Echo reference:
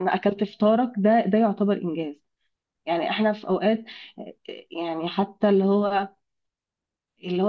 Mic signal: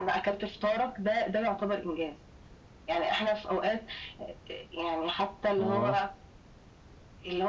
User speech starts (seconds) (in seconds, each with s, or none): 5.6 s